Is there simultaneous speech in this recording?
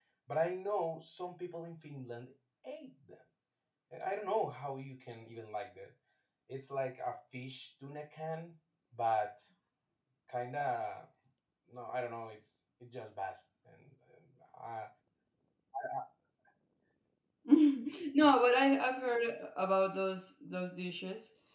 No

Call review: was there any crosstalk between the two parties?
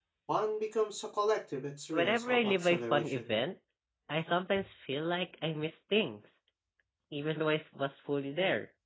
Yes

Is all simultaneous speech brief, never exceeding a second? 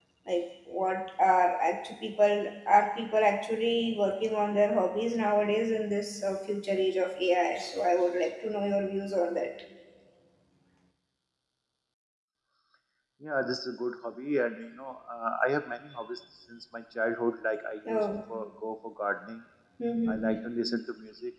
Yes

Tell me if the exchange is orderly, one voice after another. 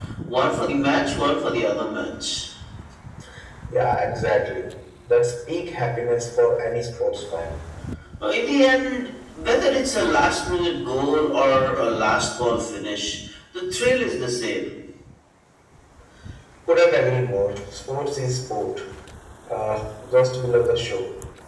Yes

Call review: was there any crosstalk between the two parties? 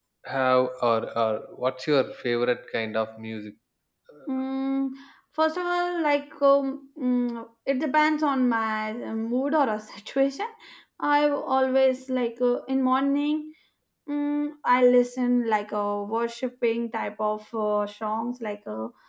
No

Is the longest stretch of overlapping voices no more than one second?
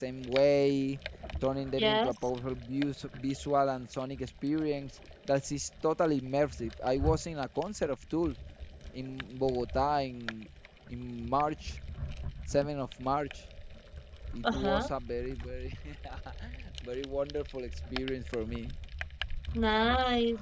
Yes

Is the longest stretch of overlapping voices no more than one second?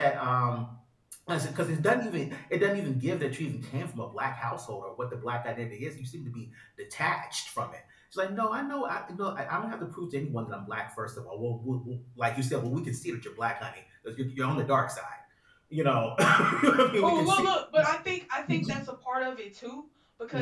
Yes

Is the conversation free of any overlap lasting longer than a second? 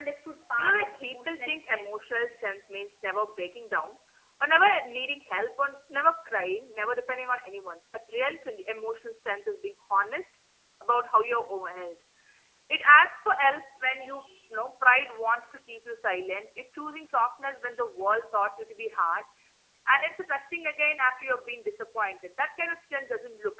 No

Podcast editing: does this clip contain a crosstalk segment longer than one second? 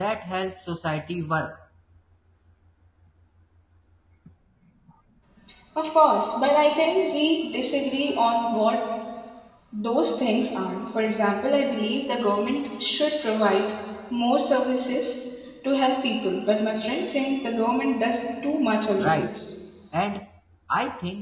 No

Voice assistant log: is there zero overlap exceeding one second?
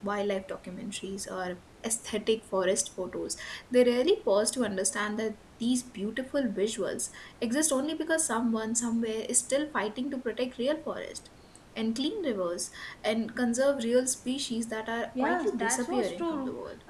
No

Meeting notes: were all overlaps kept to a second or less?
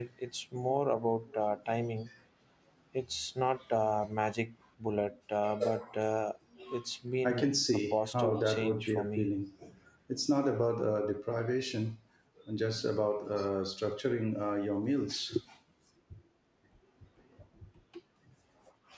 No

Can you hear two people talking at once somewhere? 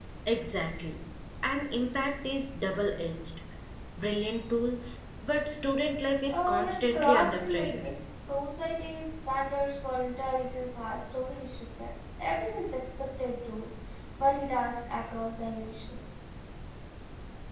Yes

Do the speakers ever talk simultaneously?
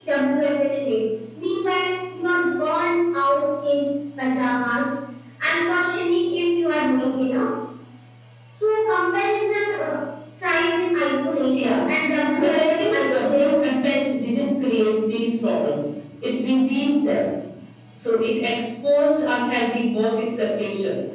Yes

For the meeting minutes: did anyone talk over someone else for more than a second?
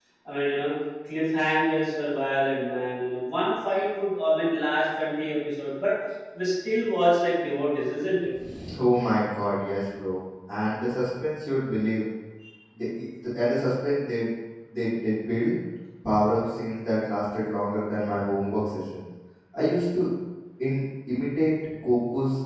No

